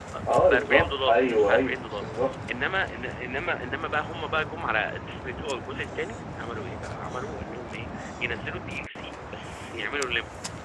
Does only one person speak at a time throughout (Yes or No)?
No